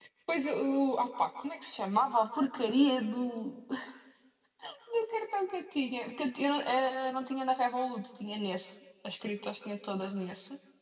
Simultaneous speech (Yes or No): No